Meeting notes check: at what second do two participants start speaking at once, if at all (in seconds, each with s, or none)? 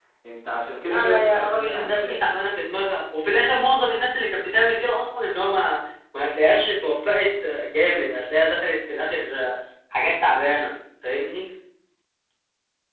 0.8 s